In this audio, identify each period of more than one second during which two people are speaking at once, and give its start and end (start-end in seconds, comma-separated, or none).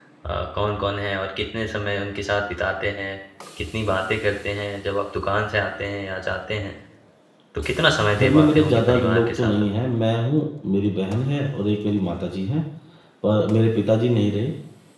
8.1-9.7